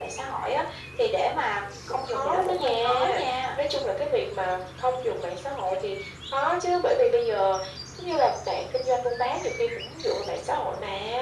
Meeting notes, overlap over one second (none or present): present